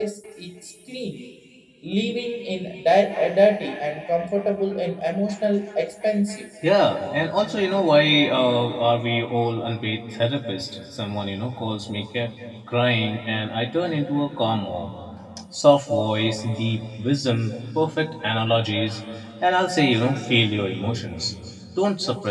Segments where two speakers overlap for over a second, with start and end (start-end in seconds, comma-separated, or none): none